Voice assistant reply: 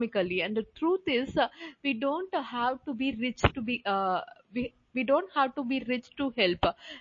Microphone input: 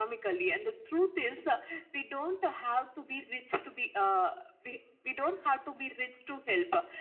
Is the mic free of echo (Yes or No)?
No